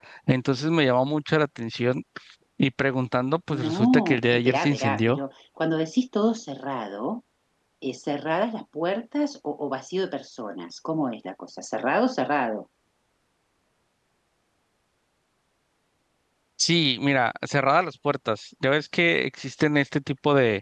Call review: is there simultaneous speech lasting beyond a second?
Yes, from 3.5 s

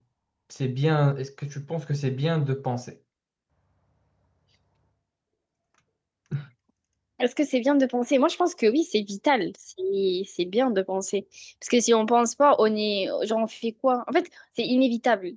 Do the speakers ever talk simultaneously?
No

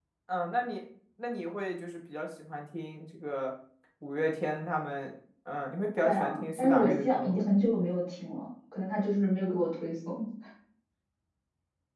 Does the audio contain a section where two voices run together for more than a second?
Yes, from 6.0 s

